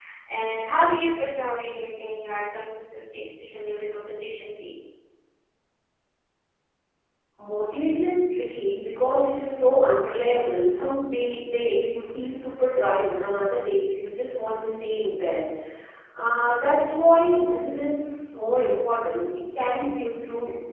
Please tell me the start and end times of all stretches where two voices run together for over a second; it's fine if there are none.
none

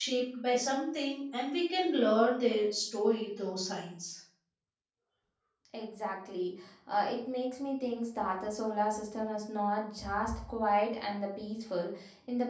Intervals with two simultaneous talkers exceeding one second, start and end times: none

